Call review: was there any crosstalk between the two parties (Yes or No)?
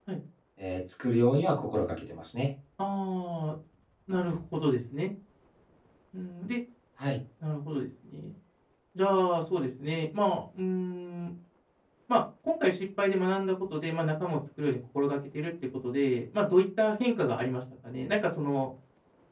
No